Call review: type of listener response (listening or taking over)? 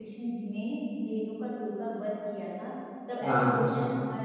listening